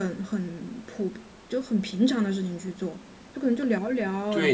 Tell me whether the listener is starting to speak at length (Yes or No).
Yes